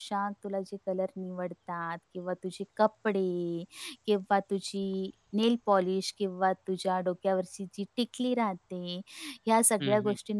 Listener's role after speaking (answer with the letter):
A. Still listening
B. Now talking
A